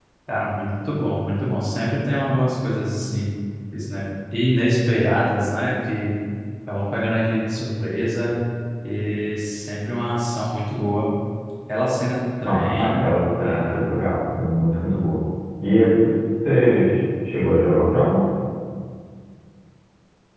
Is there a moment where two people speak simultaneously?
Yes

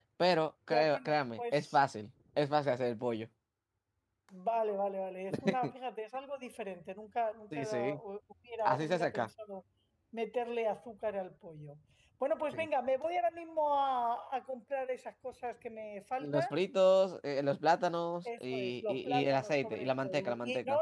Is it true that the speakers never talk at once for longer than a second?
No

